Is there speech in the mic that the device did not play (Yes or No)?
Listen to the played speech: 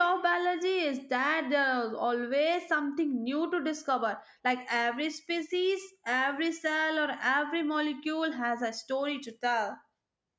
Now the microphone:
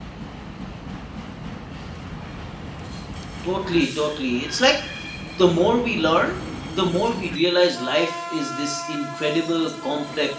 Yes